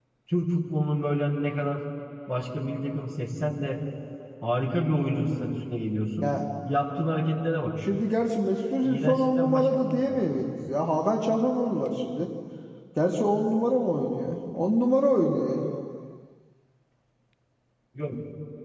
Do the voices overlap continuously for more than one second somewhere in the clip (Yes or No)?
Yes